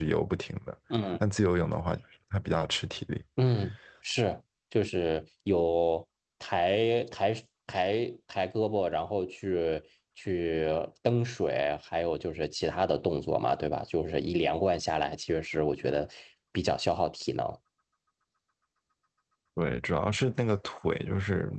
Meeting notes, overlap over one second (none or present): none